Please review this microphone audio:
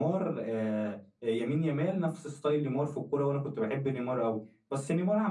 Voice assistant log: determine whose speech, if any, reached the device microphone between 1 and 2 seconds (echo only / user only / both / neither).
echo only